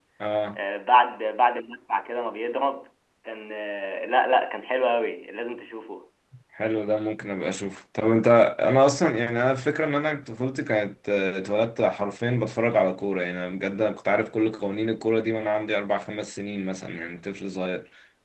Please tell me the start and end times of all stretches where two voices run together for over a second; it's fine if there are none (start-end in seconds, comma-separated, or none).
none